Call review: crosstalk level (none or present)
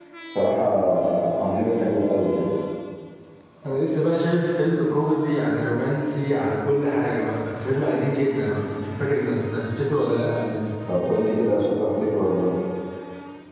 none